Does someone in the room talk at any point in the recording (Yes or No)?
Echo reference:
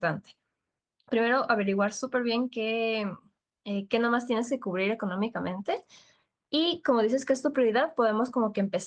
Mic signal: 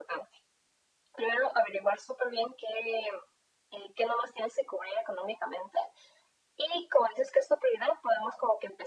No